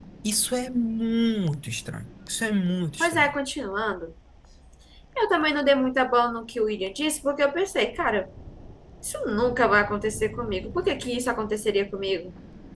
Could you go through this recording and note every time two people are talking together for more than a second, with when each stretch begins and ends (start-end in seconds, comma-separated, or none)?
none